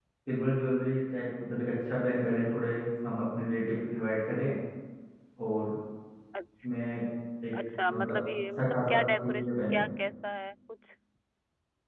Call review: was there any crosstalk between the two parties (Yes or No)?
Yes